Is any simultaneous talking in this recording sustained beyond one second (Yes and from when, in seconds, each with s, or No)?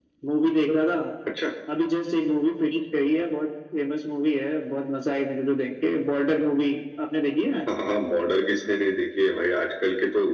No